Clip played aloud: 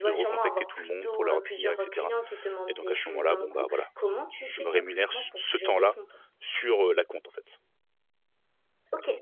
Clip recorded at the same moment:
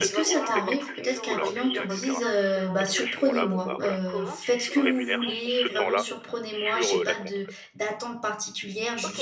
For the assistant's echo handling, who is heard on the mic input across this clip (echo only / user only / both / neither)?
both